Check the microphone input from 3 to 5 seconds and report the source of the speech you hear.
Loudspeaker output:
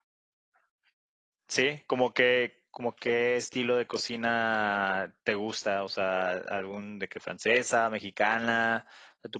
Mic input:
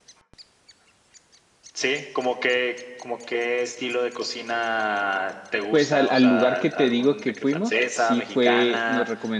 echo only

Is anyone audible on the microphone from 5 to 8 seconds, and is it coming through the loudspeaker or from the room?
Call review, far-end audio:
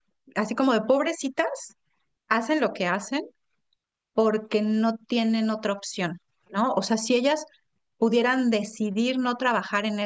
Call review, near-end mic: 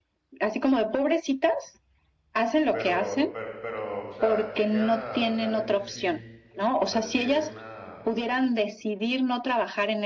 both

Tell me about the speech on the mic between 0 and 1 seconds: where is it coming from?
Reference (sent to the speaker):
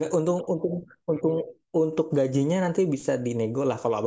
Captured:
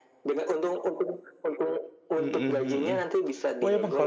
echo only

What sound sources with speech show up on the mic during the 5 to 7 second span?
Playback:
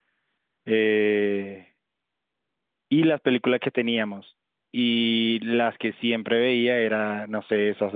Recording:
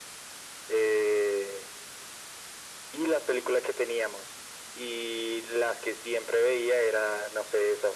echo only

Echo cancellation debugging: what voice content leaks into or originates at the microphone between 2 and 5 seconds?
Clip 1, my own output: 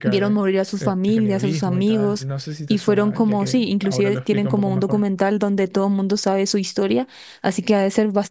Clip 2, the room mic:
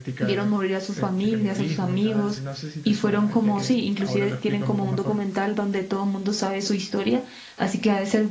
echo only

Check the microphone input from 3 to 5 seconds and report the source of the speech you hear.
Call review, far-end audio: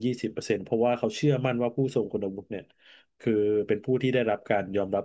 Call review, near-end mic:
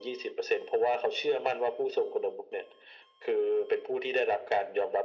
echo only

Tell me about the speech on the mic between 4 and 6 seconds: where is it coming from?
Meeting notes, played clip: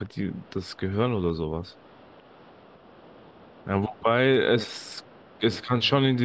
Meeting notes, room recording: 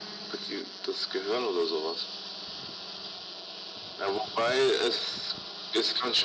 echo only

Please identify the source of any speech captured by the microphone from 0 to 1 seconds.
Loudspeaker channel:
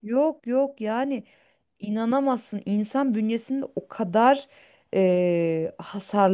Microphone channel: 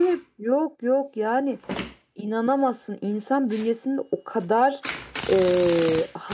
echo only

